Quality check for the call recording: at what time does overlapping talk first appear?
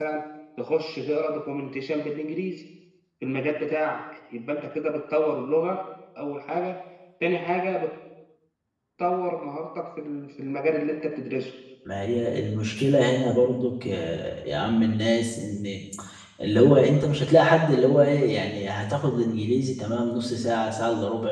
none

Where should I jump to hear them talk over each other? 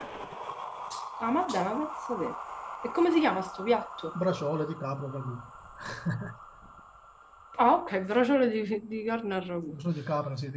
none

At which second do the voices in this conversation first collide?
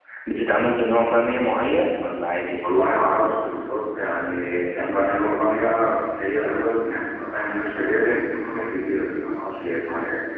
none

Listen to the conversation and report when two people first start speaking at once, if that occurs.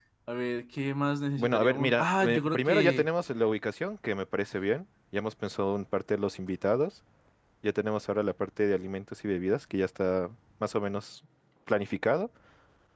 1.4 s

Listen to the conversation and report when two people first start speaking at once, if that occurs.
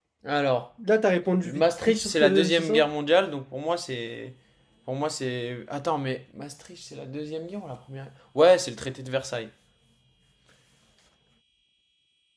1.4 s

